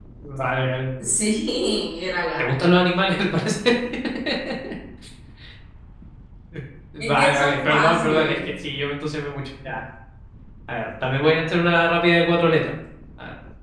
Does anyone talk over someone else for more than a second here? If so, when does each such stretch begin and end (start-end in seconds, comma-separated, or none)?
7.0-8.4